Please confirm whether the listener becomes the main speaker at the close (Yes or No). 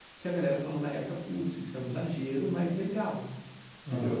Yes